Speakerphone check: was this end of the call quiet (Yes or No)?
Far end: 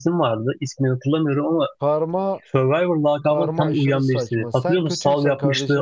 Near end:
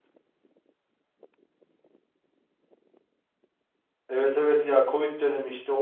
No